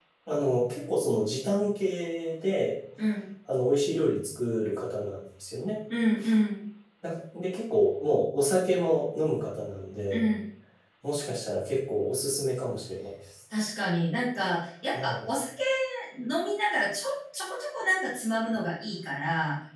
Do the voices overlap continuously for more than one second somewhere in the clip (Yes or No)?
No